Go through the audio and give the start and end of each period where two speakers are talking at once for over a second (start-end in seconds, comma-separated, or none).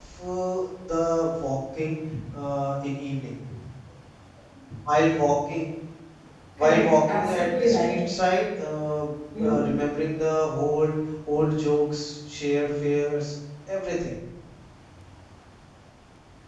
6.6-7.9